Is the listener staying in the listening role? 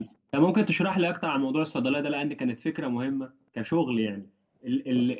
Yes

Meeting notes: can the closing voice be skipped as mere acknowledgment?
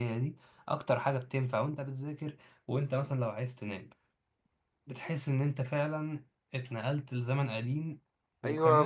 No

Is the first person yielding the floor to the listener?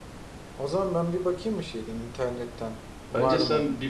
Yes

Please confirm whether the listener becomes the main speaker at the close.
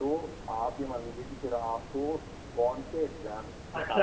Yes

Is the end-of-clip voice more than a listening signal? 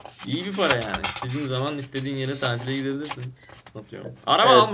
No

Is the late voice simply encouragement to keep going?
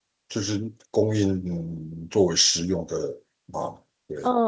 No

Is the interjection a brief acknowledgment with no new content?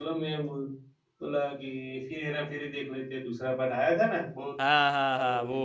No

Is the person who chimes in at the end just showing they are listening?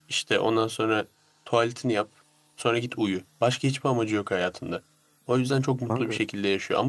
Yes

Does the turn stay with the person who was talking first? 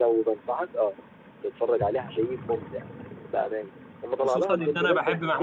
No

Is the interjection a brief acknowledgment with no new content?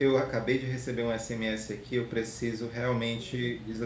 Yes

